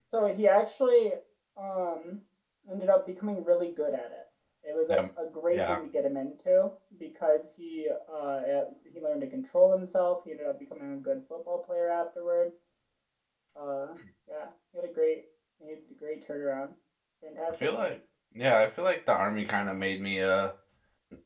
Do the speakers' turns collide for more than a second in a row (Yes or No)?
No